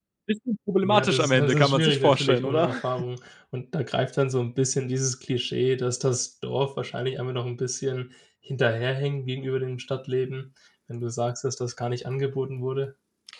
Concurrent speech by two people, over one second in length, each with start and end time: 0.8-2.7

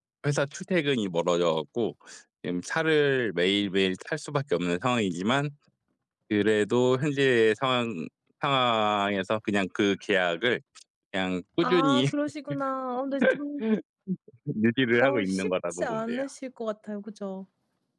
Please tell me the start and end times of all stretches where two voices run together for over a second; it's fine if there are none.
15.0-16.2

